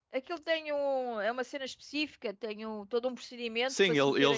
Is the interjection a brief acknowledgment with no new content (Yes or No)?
No